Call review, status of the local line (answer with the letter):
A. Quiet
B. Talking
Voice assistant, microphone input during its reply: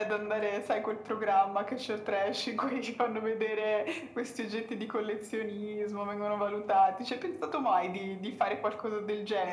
A